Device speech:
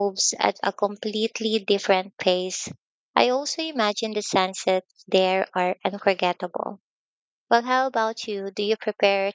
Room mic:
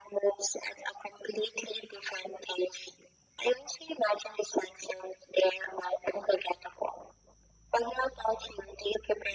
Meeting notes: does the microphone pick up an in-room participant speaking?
No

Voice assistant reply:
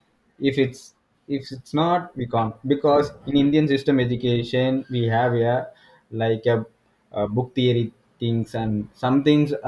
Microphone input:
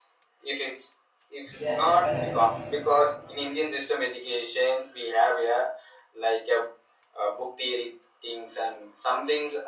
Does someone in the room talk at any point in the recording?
Yes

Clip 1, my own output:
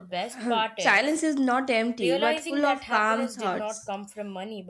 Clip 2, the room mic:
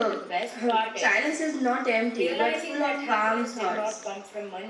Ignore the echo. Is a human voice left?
No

